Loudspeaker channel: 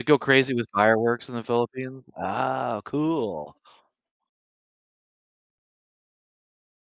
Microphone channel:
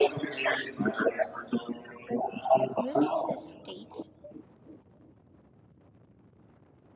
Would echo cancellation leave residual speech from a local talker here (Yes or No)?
Yes